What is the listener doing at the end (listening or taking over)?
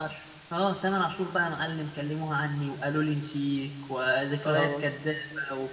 listening